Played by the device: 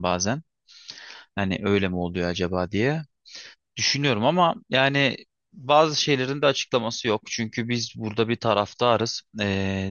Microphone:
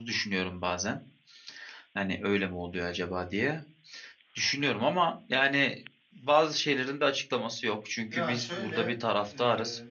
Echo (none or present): present